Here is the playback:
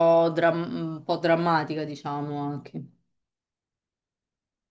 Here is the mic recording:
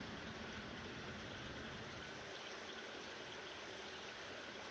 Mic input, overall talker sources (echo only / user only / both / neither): neither